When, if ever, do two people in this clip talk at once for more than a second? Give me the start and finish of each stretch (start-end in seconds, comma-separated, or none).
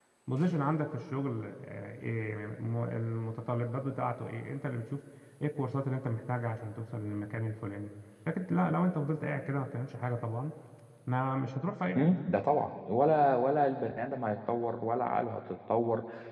none